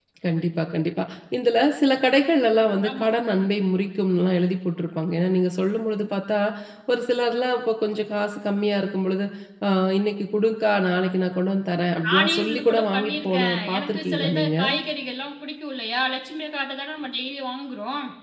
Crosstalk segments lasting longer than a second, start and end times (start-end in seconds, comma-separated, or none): 12.1-14.6